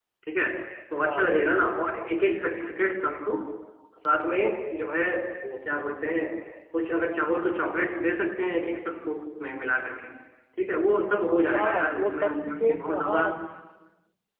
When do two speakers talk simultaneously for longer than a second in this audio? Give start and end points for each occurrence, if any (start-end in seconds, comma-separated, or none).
11.6-13.3